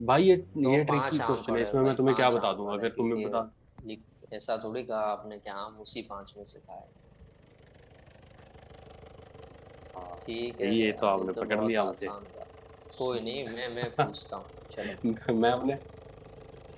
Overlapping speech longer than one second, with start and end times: 0.7-3.3, 10.7-12.1

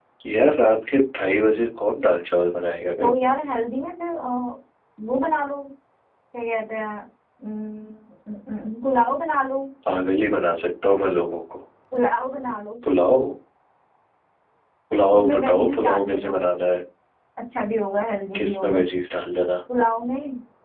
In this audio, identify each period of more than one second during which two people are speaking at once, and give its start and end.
15.2-16.4

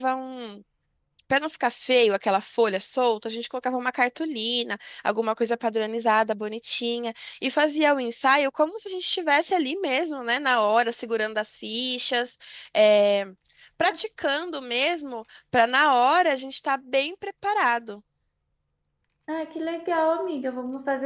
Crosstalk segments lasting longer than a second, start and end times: none

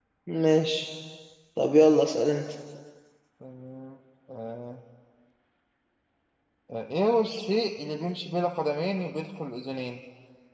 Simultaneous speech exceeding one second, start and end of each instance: none

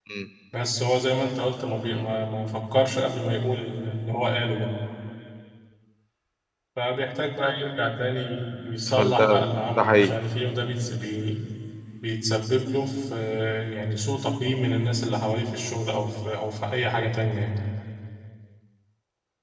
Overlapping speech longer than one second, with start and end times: 8.9-10.2

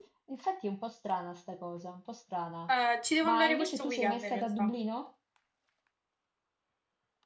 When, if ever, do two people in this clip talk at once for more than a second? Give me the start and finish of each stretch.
3.2-4.7

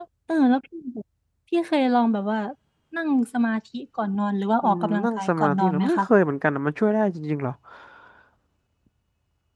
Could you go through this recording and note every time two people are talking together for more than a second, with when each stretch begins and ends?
4.6-6.0

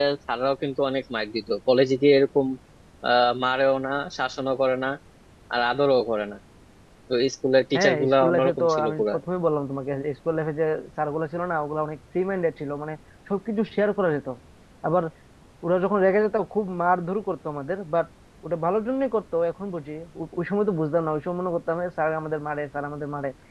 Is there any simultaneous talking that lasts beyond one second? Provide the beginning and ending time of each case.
7.7-9.2

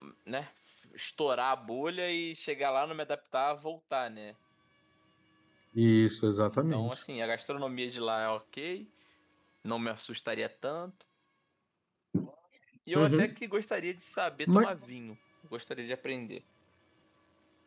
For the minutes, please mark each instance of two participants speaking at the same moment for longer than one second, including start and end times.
none

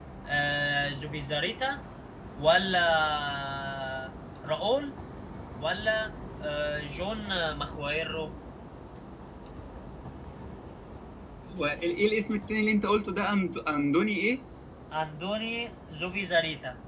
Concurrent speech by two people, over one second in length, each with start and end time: none

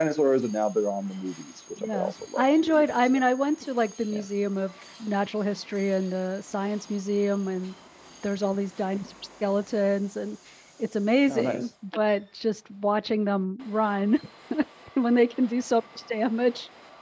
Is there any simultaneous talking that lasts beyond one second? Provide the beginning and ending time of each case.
1.9-3.2

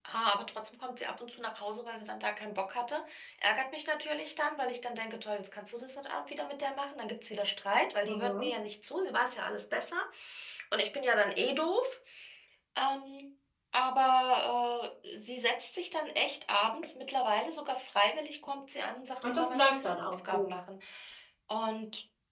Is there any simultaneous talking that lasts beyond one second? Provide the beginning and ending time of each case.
19.2-20.5

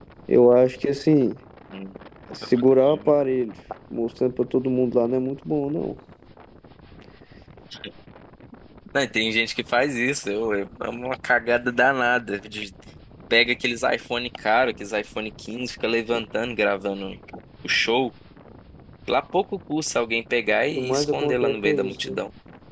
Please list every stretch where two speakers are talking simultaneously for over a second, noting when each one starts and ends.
20.8-22.2

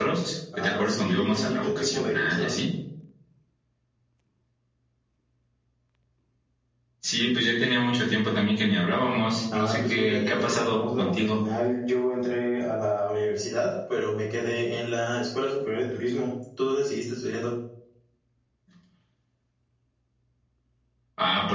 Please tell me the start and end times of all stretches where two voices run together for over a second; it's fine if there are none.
0.6-2.5, 9.5-11.4

